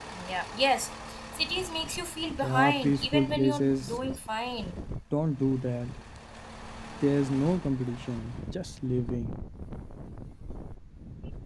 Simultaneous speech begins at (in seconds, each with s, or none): 2.4 s